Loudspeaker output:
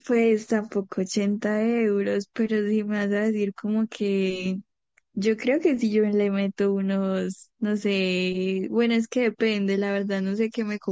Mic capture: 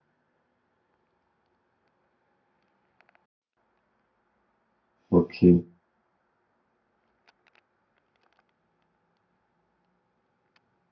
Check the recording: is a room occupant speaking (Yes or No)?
Yes